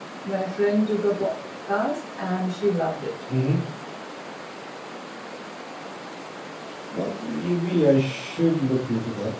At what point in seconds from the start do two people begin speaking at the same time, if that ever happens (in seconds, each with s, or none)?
none